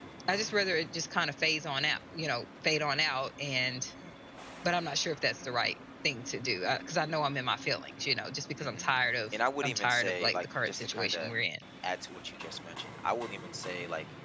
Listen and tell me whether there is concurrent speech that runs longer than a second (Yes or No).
Yes